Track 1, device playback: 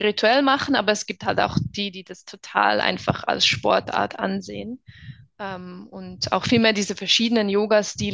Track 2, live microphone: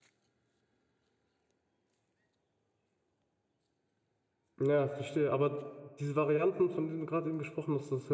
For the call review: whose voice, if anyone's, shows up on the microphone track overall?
user only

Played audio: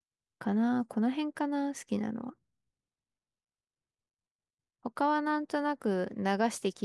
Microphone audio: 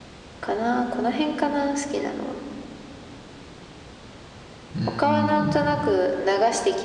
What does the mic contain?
both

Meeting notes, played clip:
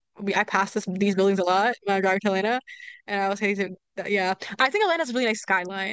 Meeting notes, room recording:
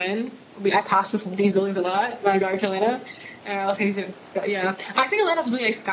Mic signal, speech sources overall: echo only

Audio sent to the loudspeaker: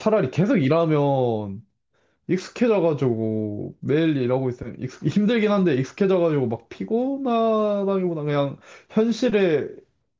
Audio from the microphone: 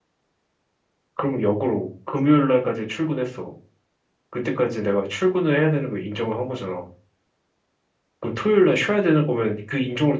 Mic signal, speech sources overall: user only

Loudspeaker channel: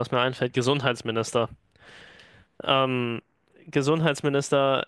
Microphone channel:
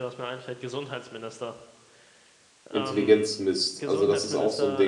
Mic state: both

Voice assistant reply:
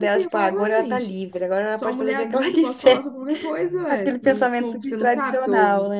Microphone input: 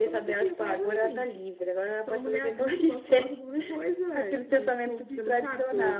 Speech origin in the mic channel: echo only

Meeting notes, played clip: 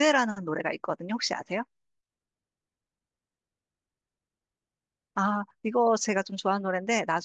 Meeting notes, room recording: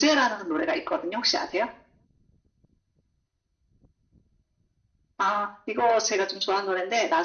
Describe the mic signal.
echo only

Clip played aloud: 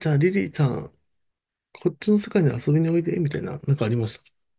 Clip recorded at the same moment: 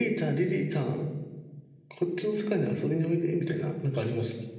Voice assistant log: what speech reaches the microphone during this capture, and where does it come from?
echo only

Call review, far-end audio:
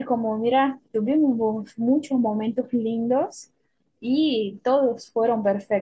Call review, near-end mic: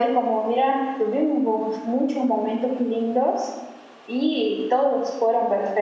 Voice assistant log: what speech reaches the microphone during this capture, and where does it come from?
echo only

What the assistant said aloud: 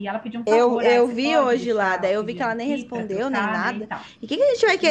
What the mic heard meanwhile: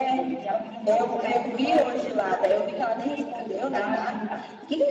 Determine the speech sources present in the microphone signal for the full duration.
both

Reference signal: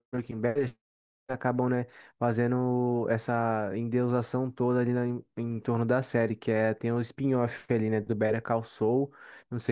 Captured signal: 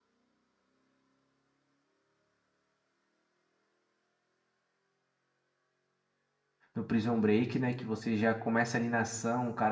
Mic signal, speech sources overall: user only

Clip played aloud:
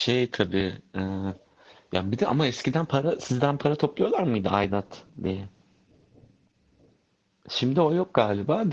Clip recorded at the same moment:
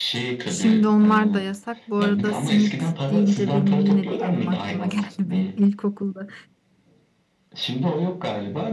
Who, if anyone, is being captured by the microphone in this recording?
both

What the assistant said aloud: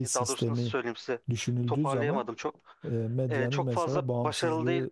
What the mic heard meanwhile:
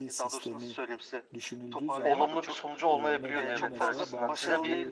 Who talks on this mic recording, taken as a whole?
both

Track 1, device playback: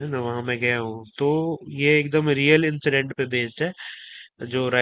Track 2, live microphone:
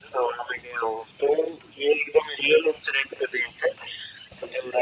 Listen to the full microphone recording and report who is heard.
echo only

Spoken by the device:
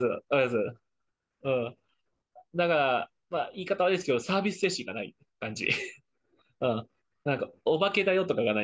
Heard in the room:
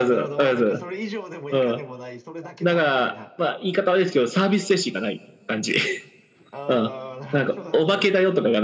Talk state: both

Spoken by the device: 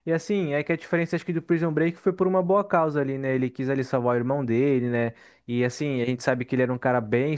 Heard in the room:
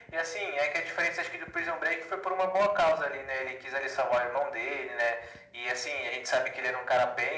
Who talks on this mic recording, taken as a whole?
echo only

